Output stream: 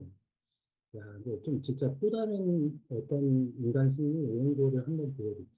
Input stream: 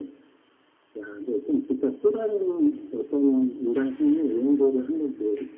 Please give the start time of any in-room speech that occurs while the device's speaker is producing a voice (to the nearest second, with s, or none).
none